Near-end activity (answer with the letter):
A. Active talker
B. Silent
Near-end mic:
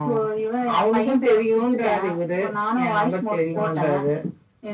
B